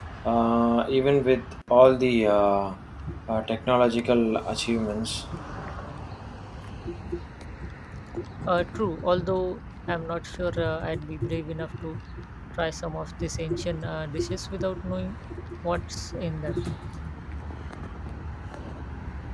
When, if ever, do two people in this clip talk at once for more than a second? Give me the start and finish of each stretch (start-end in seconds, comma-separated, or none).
none